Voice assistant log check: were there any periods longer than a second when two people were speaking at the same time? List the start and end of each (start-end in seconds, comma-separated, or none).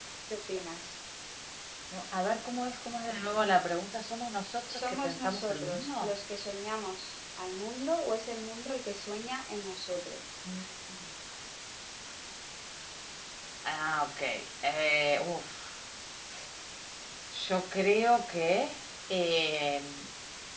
4.7-6.1